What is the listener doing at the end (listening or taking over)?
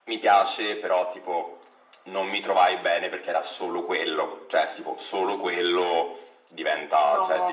listening